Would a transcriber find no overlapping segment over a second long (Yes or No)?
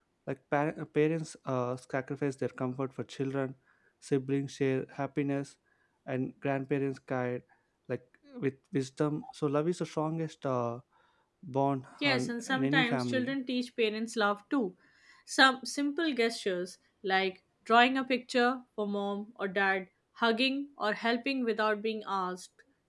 No